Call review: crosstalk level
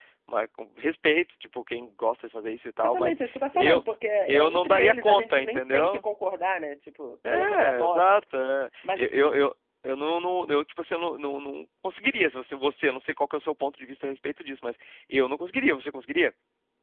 present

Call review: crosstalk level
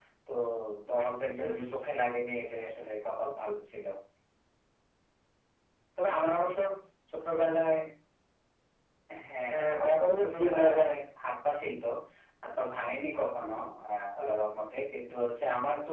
present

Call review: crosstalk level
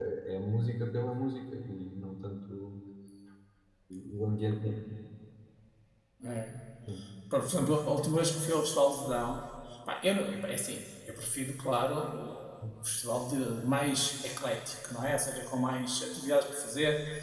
none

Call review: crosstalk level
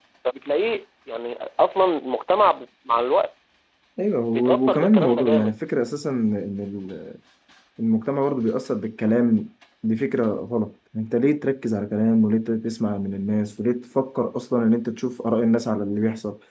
present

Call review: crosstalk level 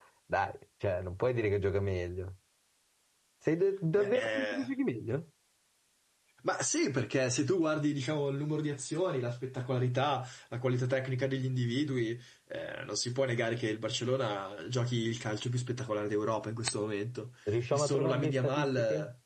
present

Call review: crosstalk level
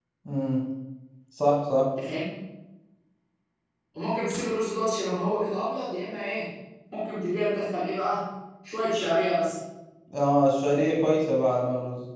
none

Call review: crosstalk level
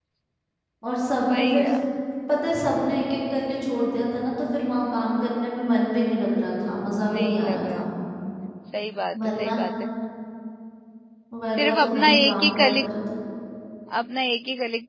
present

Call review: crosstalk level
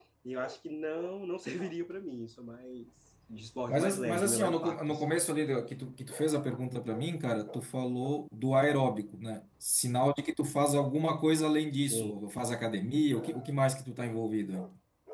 present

